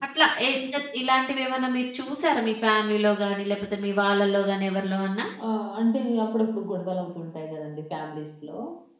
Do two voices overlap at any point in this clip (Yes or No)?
No